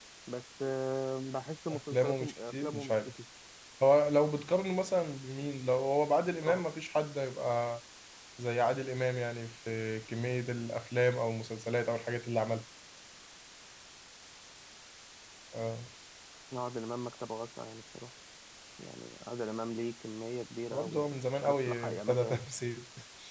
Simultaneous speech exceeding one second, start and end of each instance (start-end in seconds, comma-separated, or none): 1.7-3.1, 20.7-22.4